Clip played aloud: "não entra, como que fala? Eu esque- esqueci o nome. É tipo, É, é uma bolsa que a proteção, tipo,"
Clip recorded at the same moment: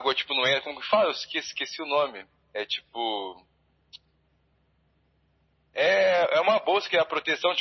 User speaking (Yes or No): No